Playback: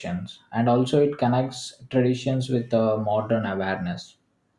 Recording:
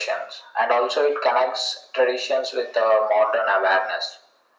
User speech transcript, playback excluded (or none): none